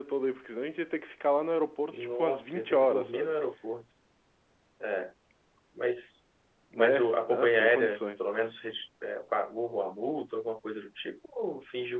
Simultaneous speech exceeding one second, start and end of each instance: 1.9-3.3, 6.7-8.2

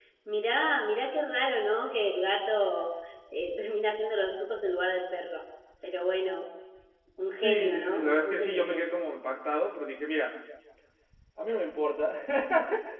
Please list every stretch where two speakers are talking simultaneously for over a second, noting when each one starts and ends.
7.4-9.0

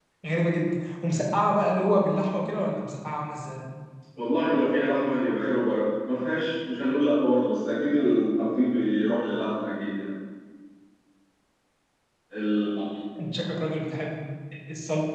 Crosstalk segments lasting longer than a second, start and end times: none

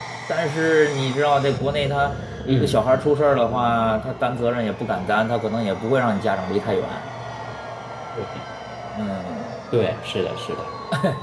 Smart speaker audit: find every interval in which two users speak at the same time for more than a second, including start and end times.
none

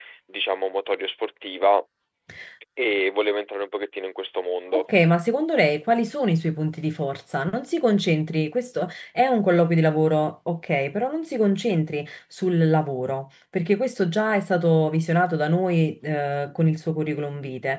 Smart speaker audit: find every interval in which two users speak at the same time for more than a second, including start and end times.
none

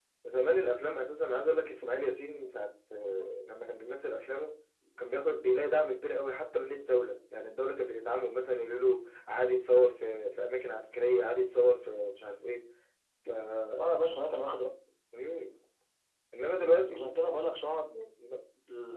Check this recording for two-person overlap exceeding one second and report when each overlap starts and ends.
none

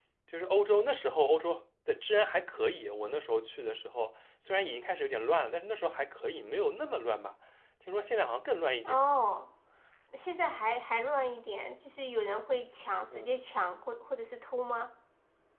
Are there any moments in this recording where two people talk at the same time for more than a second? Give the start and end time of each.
none

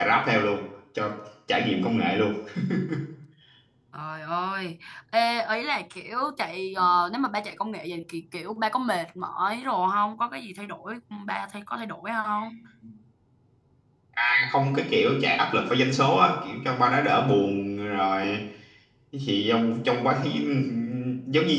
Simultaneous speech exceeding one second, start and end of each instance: none

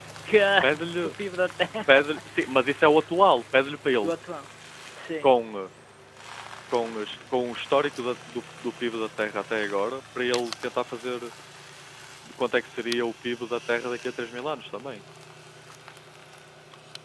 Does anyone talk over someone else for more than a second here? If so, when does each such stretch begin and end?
none

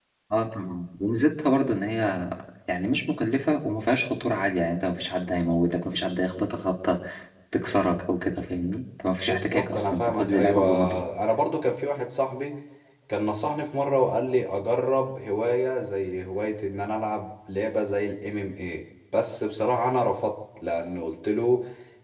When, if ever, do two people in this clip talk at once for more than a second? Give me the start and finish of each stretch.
9.3-11.0

